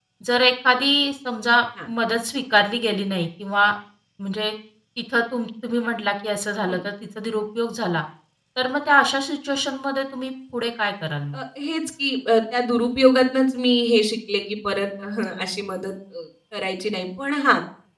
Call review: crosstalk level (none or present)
none